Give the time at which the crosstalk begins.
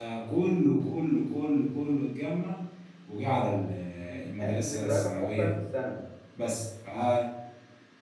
4 s

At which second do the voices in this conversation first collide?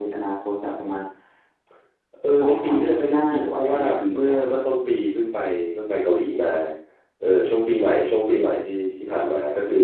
2 s

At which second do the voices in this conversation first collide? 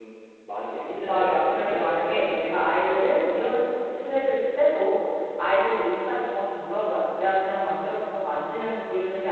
1 s

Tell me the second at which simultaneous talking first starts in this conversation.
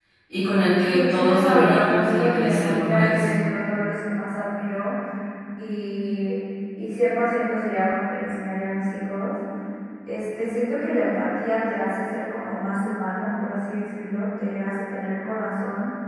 1 s

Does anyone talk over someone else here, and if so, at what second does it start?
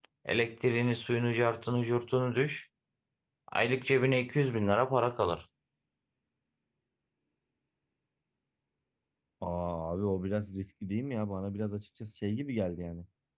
none

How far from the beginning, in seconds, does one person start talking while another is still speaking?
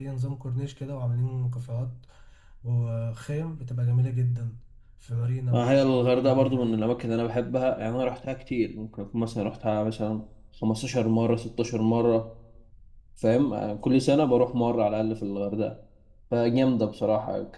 6 s

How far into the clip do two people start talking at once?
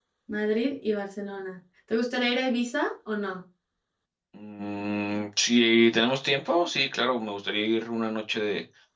none

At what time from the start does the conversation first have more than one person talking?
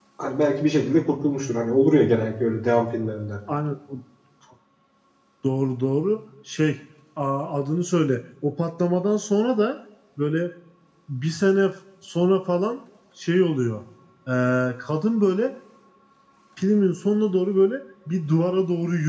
none

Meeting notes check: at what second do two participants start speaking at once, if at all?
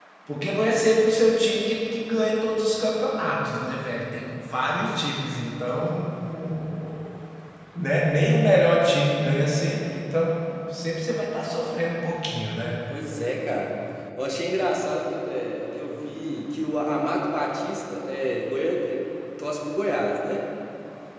none

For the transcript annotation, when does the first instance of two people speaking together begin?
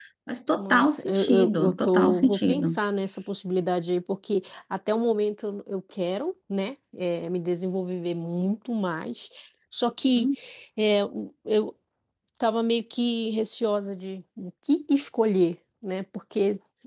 1 s

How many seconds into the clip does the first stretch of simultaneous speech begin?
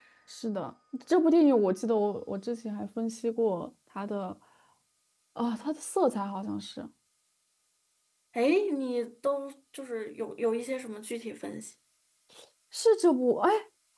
none

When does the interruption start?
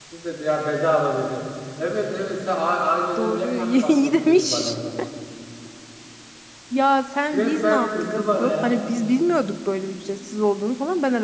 3 s

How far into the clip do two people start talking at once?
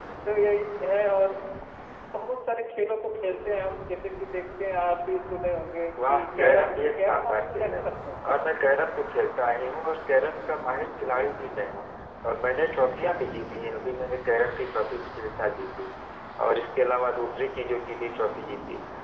6 s

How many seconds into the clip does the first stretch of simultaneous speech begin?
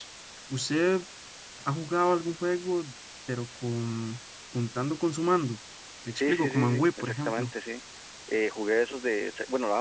6 s

